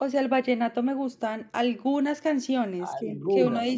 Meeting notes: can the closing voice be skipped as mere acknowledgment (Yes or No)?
Yes